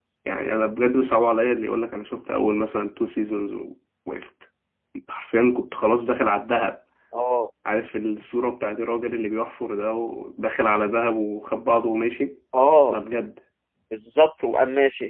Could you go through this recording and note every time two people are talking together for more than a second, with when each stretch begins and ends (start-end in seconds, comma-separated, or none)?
none